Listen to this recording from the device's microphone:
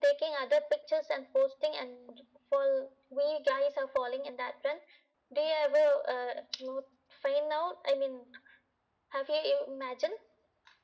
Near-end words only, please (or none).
none